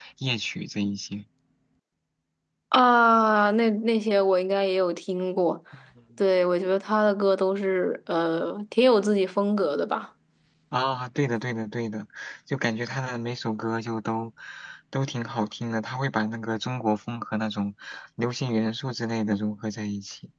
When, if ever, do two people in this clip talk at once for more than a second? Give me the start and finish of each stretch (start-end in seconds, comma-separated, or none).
none